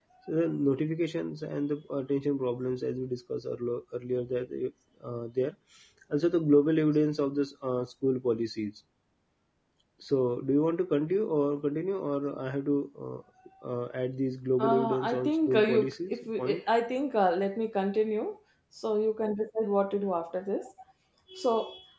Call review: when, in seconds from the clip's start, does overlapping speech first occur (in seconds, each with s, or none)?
14.6 s